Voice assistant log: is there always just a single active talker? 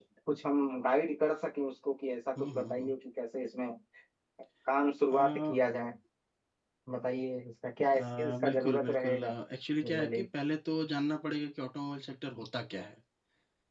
No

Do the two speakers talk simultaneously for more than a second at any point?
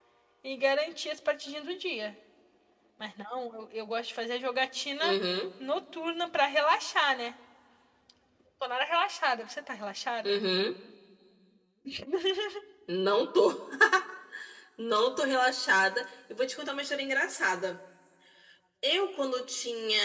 No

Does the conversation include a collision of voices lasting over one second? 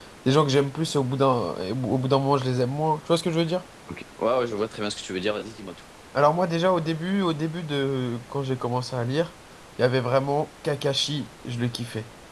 No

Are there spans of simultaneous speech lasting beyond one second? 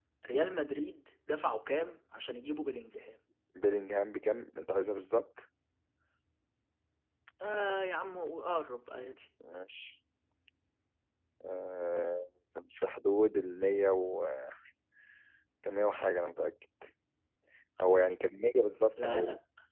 No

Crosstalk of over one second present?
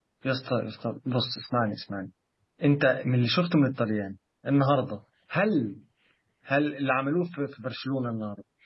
No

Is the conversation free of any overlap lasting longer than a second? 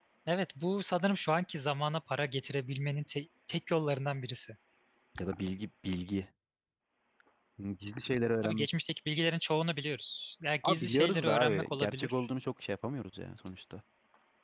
No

